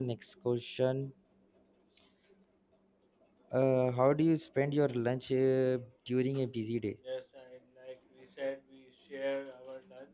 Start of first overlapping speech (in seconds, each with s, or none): none